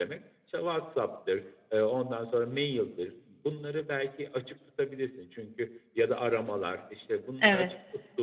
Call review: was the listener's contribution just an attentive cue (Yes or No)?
Yes